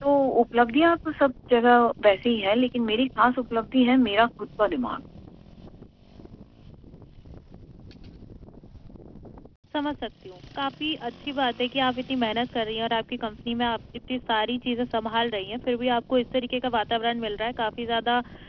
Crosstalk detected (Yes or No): No